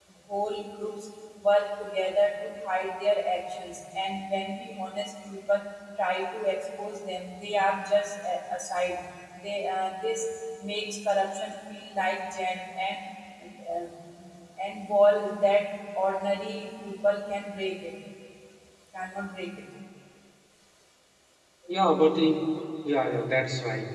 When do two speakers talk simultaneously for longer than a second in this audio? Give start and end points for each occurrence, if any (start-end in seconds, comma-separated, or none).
none